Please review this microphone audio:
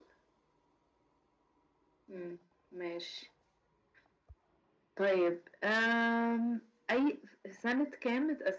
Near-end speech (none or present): none